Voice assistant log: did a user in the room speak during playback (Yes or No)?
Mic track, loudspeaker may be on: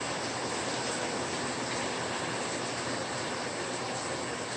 No